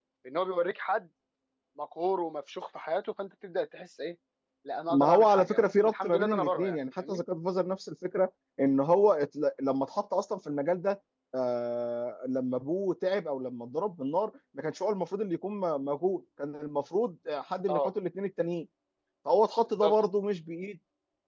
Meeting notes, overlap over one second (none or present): present